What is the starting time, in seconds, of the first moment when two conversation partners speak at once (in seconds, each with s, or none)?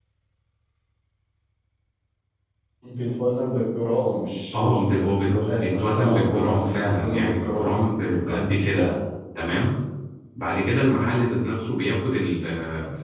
4.5 s